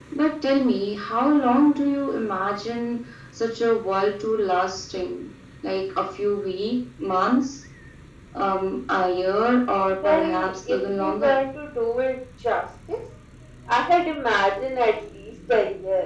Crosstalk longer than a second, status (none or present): present